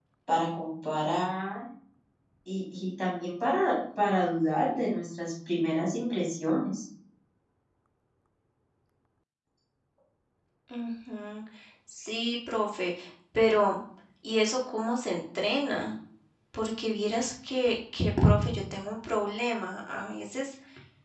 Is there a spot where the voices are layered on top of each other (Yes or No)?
No